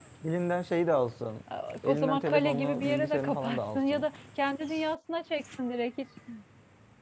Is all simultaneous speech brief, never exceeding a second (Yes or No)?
No